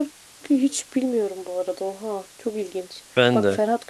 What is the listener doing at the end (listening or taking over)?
listening